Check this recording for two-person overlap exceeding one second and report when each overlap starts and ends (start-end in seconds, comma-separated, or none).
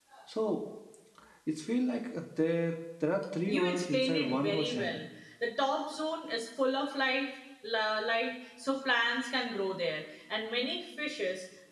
3.5-5.0